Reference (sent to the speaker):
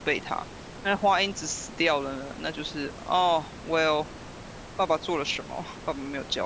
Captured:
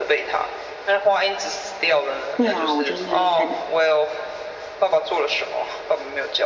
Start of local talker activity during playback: 2 s

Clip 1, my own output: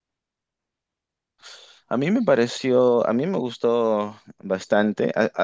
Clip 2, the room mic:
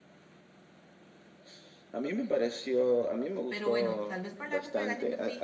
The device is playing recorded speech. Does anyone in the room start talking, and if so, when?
3 s

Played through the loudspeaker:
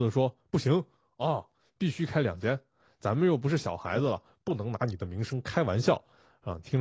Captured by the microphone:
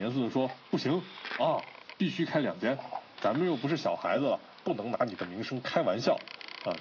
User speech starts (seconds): none

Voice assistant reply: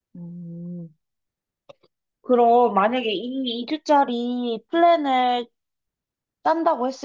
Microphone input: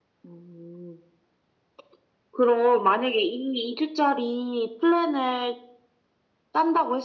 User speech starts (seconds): none

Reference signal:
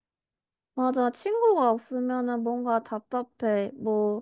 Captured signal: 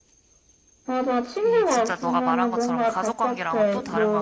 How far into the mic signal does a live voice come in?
1 s

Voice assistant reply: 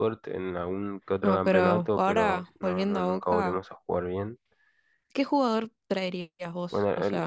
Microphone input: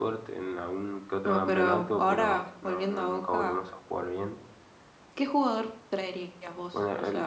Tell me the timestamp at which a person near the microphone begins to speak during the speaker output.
none

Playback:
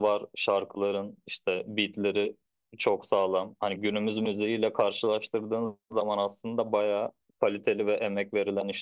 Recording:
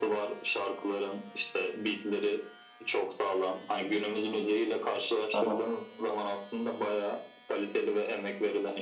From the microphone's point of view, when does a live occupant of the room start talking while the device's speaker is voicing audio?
5 s

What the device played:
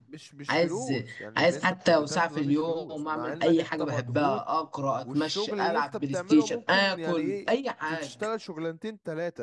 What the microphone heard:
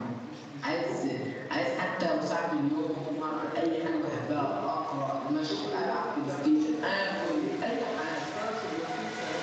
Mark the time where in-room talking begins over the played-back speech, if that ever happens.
none

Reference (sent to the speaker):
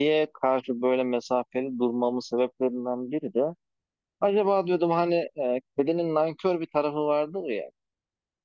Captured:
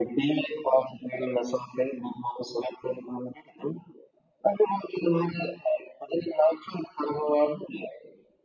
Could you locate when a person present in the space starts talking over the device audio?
none

